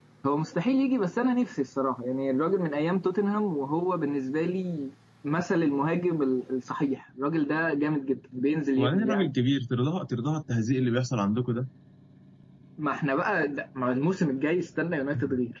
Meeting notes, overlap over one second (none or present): none